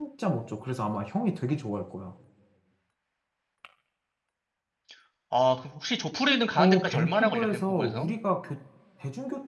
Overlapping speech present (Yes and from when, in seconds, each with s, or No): Yes, from 6.6 s